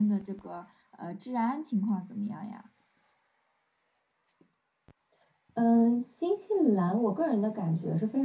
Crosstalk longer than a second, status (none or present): none